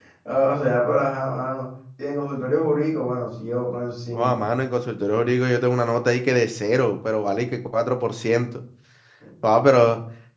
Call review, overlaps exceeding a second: none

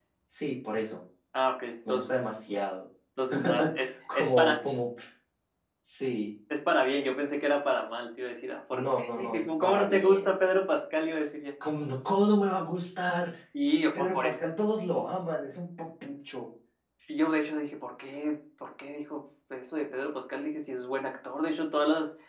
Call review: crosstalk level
present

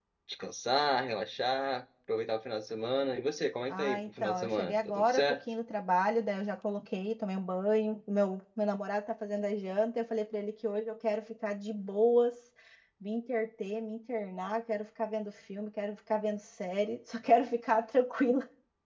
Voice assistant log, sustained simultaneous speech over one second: present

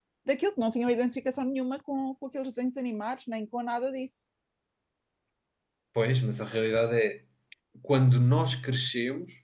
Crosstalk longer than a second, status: none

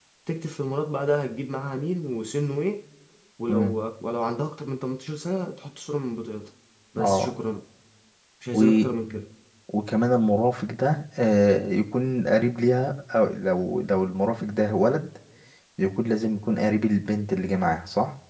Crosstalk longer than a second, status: none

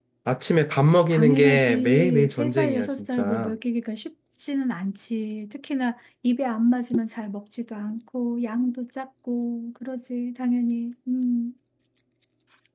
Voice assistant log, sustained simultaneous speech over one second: present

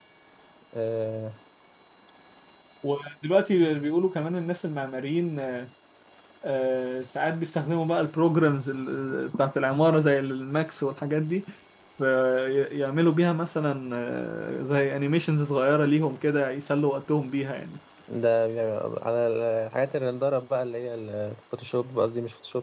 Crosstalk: none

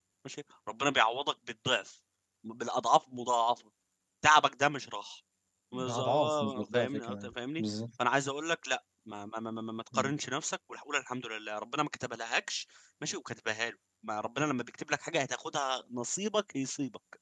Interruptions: present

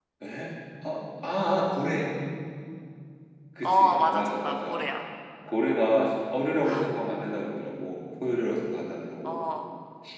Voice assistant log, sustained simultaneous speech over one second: present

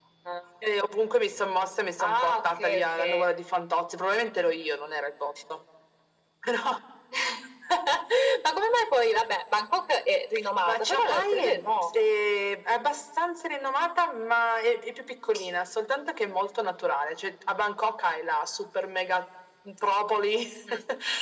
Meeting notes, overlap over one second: present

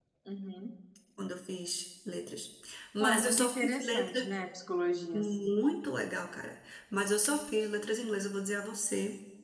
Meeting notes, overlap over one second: present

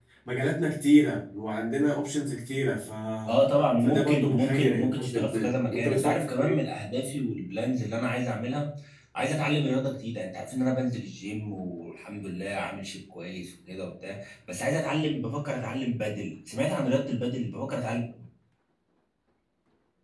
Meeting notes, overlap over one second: present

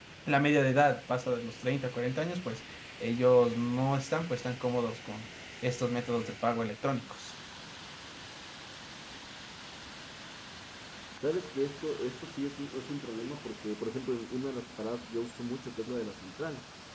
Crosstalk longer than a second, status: none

